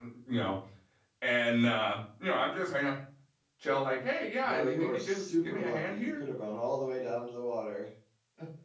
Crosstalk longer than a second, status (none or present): present